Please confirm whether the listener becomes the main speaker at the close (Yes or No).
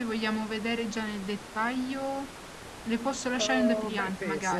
Yes